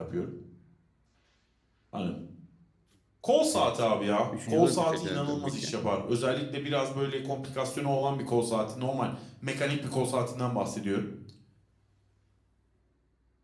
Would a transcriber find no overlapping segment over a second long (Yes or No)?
No